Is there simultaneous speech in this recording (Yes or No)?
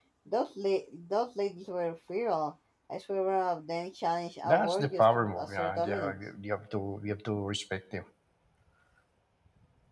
Yes